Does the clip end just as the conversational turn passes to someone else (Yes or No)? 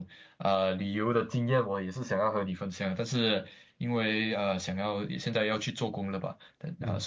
No